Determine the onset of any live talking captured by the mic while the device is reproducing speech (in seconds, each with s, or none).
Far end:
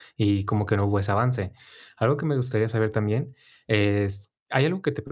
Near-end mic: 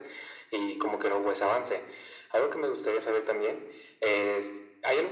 none